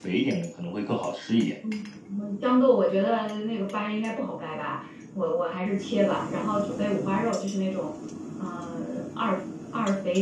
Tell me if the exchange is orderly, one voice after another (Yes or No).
Yes